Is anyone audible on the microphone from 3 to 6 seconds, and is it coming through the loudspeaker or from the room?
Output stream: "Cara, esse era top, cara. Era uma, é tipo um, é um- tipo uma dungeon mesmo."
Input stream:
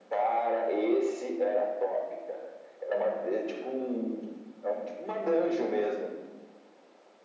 echo only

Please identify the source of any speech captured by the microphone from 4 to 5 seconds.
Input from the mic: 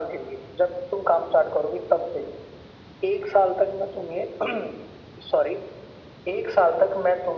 echo only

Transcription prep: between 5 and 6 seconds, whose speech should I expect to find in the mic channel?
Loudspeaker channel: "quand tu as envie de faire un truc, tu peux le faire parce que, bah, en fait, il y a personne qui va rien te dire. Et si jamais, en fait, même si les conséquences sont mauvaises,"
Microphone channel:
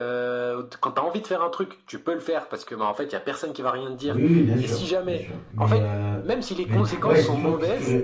both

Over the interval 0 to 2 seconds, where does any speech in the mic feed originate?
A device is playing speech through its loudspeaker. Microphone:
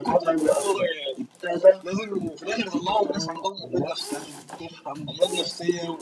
echo only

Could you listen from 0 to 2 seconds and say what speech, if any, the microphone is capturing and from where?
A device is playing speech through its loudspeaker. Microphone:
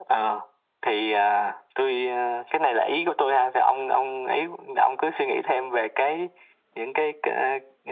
echo only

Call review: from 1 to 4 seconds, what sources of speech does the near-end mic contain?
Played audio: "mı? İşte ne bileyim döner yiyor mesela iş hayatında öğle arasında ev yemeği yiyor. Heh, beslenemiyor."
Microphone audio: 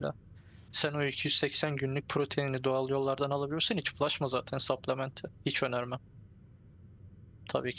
user only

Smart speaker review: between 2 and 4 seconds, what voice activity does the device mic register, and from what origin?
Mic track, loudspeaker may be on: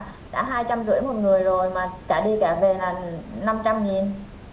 echo only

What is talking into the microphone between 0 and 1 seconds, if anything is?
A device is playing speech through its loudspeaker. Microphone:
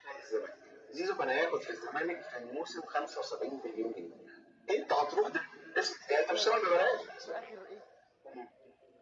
echo only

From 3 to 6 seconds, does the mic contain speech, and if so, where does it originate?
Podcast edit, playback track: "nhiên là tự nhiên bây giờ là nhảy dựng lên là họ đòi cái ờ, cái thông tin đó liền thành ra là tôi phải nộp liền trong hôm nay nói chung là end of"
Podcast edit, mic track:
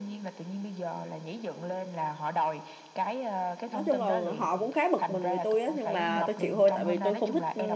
both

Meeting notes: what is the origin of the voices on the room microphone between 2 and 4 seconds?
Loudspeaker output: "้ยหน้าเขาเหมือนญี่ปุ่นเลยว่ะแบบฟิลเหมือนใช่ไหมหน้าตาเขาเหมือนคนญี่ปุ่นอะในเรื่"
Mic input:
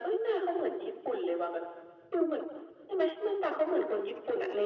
echo only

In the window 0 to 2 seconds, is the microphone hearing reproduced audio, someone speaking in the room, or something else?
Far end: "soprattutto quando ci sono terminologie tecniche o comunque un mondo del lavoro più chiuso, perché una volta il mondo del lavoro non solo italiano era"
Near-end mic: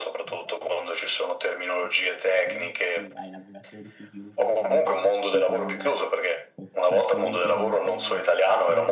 both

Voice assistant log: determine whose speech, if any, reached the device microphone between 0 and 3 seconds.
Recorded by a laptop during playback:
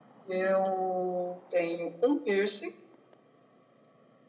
echo only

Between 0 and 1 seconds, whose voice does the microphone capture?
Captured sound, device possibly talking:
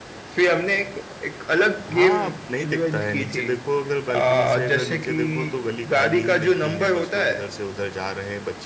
echo only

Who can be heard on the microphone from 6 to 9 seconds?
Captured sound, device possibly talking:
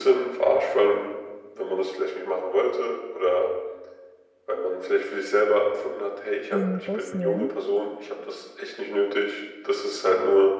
both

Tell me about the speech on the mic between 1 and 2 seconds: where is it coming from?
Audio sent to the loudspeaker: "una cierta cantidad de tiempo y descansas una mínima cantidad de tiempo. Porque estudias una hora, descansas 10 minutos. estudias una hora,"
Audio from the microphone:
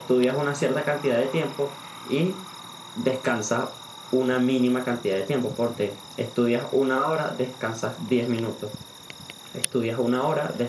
echo only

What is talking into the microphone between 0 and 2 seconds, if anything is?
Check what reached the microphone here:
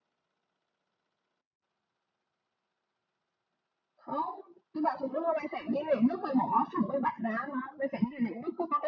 neither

